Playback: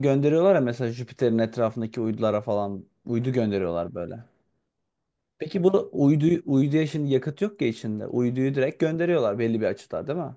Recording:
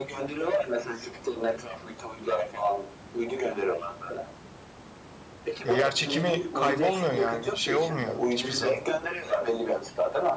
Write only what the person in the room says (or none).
Ya yer çekimi kaybolmuyor yani şey olmuyor hiçbir zaman.